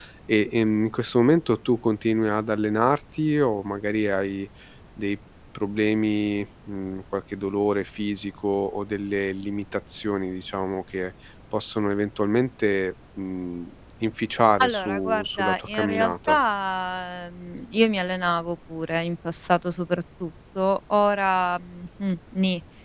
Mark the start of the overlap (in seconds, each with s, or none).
14.6 s